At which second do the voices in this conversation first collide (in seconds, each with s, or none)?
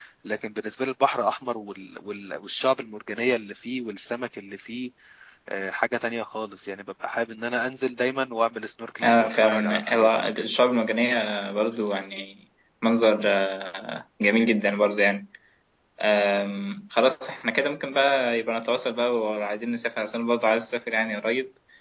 9.0 s